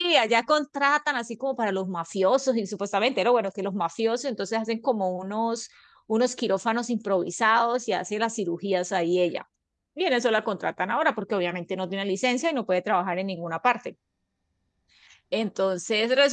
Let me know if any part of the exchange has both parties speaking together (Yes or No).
No